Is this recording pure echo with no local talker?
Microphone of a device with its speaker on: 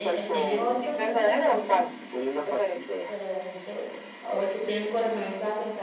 No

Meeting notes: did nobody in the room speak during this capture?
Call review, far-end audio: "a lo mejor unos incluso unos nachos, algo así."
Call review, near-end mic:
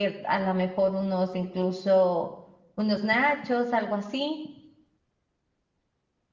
Yes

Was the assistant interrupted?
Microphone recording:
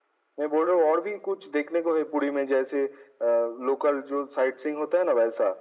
No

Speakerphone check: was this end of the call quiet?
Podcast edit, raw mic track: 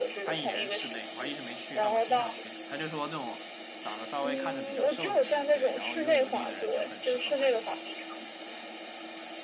No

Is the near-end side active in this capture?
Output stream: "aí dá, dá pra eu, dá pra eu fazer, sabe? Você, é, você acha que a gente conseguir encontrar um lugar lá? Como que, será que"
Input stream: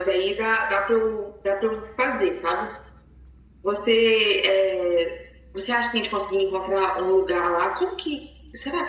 No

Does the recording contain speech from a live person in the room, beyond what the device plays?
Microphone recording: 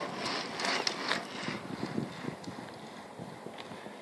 No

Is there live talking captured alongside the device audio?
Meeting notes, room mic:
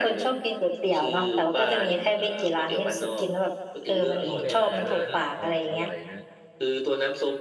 Yes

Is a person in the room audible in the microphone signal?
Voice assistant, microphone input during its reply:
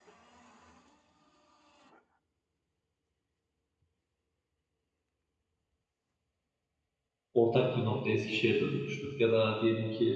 Yes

